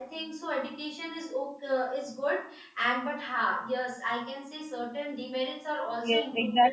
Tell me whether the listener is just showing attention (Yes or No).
No